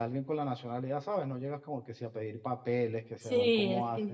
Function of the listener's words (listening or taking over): taking over